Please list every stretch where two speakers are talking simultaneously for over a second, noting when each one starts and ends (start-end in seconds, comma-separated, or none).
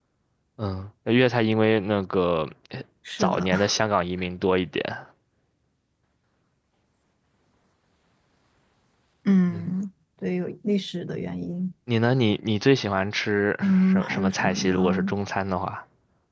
13.6-15.1